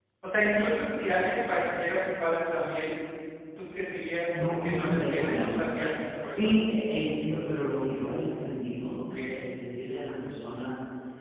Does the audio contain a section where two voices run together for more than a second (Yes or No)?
Yes